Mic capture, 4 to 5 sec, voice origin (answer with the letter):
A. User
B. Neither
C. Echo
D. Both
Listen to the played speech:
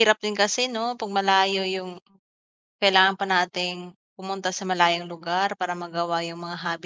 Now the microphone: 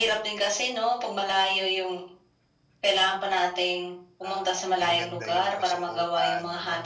D